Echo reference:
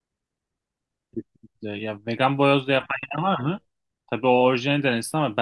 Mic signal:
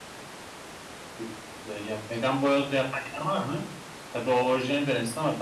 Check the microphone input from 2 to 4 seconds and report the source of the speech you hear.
echo only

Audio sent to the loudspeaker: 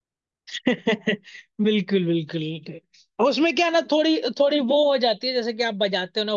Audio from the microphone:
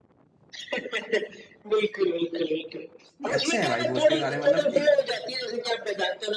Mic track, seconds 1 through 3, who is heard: echo only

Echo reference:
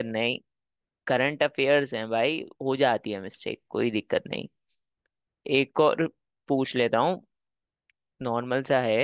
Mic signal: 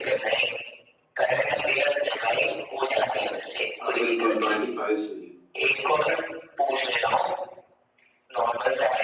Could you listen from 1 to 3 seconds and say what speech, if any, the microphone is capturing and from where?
echo only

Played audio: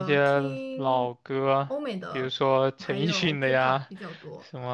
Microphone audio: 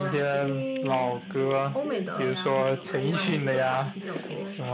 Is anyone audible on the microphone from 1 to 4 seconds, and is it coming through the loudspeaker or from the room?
both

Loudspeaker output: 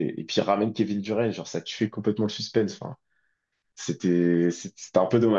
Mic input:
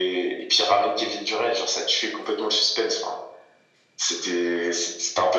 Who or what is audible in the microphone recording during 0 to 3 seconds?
echo only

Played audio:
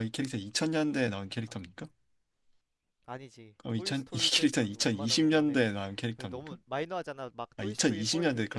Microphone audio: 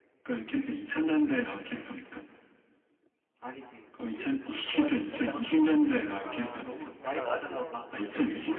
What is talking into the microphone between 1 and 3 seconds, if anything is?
echo only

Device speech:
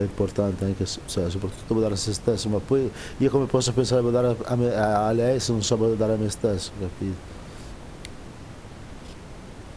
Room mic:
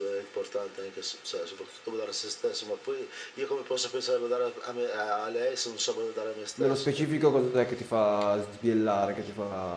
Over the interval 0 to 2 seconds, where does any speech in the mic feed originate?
echo only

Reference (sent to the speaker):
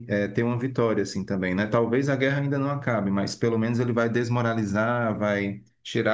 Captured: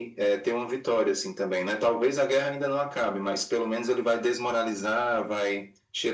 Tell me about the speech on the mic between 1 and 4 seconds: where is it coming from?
echo only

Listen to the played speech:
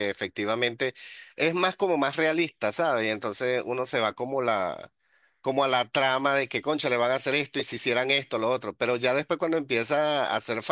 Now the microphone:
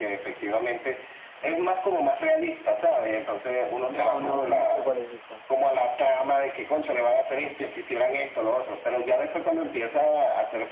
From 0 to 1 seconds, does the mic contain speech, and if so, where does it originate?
echo only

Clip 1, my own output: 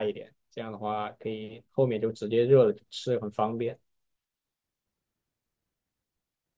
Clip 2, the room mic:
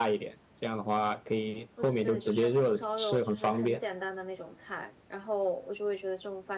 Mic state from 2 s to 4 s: both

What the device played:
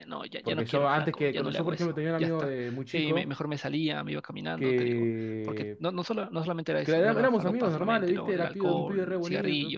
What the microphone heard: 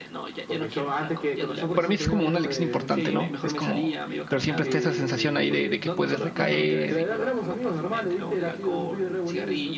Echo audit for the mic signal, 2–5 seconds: both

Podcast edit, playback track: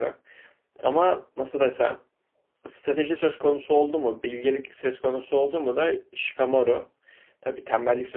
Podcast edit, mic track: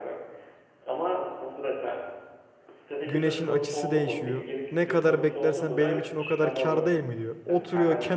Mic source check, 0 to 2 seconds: echo only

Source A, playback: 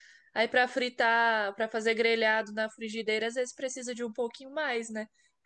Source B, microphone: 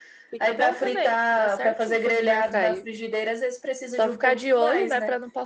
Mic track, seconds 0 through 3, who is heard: both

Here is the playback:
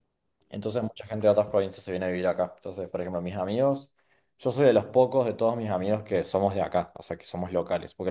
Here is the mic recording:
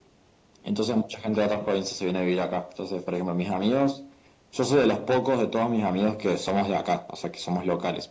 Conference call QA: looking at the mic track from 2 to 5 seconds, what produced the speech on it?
echo only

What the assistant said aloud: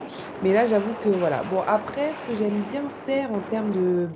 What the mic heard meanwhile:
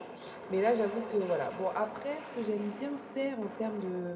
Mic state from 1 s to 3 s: echo only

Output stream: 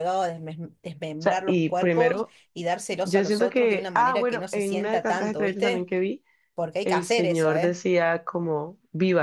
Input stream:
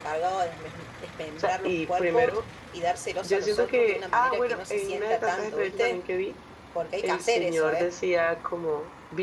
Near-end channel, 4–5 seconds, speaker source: echo only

